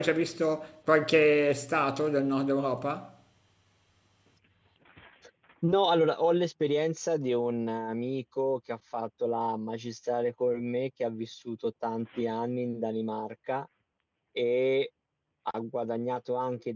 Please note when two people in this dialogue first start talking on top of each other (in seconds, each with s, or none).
none